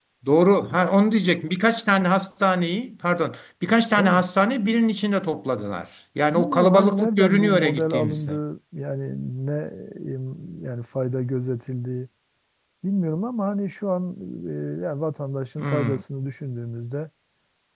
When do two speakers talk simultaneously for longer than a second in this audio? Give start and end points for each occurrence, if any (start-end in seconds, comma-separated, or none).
6.3-8.3